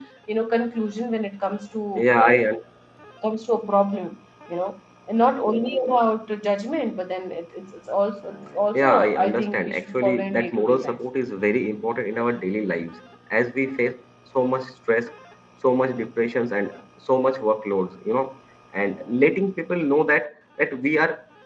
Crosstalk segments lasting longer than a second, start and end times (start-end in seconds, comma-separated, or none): 8.7-10.9